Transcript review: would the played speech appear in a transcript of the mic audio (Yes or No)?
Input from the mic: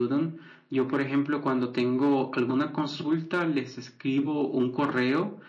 Yes